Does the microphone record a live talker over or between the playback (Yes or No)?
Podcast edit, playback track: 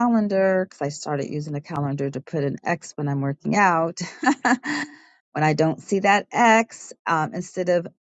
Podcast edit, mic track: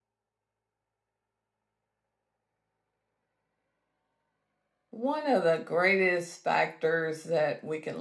Yes